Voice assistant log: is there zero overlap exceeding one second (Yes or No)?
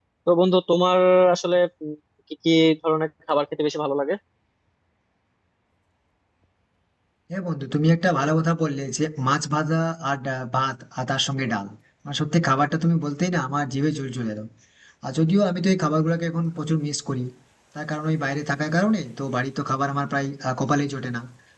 Yes